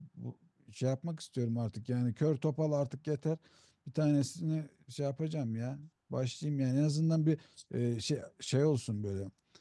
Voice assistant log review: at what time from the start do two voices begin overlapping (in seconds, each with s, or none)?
none